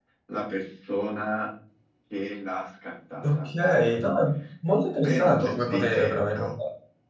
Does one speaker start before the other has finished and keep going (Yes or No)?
Yes